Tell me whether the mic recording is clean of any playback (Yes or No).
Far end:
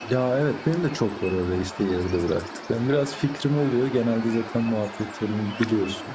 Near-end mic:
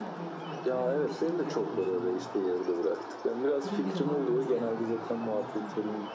No